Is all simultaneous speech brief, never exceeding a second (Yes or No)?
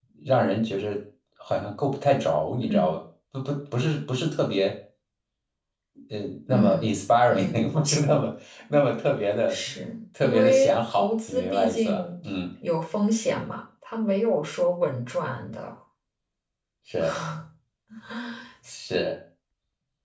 No